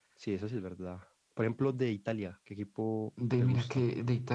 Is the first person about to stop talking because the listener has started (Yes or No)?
Yes